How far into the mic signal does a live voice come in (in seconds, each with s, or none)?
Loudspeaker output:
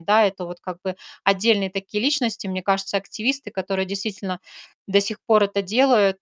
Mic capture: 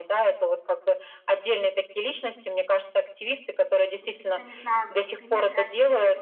4.0 s